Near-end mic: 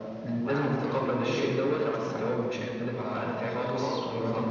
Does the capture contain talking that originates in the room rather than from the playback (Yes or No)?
No